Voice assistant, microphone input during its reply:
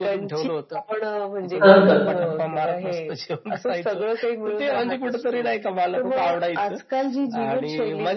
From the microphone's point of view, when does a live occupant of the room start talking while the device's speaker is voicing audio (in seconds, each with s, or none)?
1.6 s